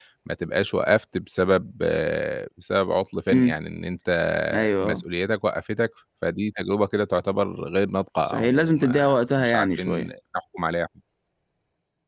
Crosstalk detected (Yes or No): Yes